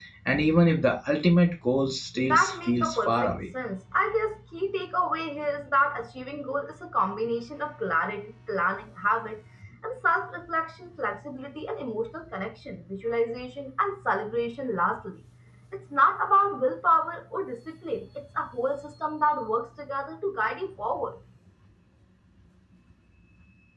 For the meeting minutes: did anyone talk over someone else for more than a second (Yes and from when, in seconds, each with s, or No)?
Yes, from 2.1 s